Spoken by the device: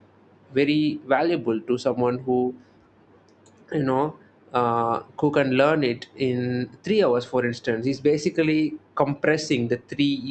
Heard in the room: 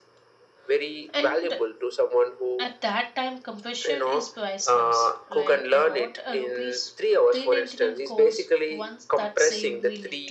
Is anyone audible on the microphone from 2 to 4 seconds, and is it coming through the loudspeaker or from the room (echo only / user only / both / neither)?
both